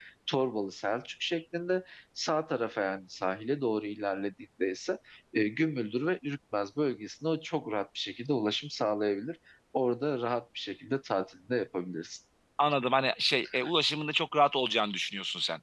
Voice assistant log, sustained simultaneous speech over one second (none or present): none